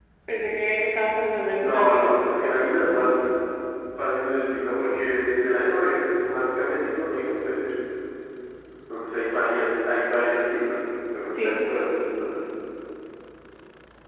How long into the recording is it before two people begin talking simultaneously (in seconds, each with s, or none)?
1.6 s